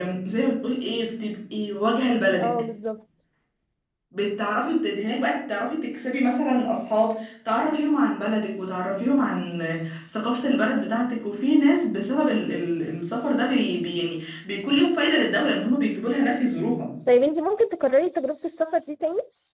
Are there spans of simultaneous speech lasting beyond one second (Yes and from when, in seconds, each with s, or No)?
No